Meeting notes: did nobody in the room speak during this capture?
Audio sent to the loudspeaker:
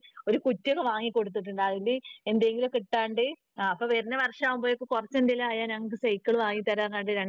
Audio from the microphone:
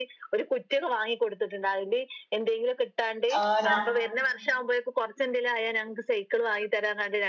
No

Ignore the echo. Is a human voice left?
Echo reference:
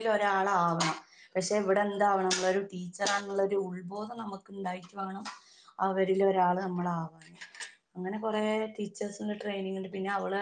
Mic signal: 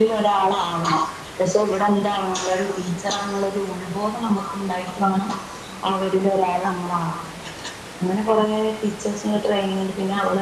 No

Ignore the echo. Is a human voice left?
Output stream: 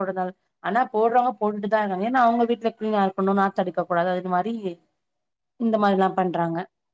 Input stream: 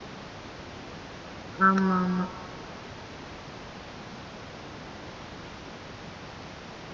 Yes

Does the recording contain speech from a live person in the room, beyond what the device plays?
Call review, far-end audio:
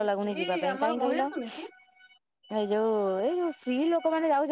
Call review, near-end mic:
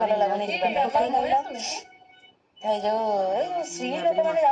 Yes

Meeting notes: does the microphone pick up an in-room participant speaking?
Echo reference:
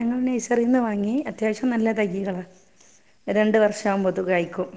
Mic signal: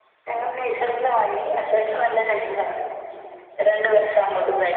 No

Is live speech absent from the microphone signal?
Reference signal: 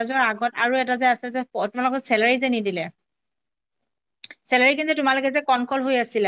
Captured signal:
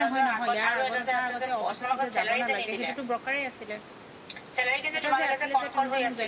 No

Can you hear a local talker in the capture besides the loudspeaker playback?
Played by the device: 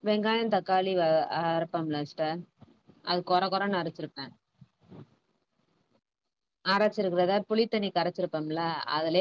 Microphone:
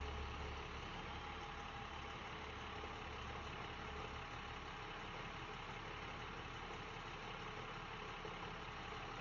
No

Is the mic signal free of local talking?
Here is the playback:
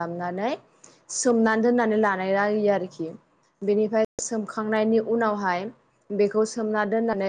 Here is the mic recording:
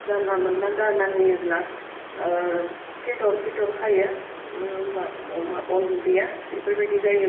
No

